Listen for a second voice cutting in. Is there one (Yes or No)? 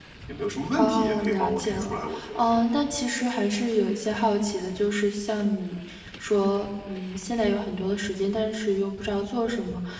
Yes